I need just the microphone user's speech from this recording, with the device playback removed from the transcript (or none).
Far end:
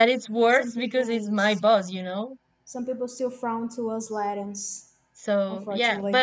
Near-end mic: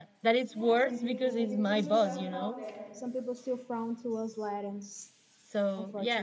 yeah, it improves when you put yourself out there.